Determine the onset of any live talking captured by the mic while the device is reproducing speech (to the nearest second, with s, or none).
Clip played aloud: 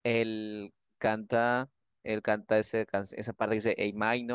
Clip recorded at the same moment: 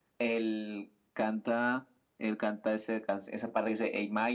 none